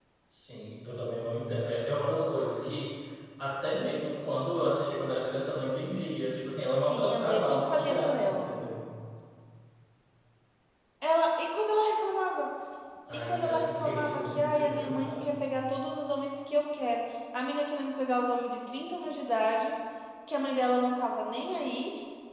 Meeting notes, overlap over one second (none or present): present